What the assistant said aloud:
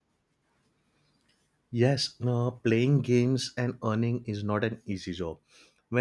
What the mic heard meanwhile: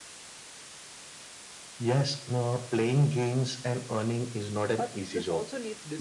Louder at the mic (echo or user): echo